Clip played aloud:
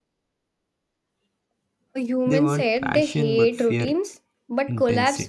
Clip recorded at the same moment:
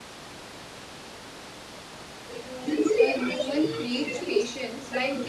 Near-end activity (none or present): present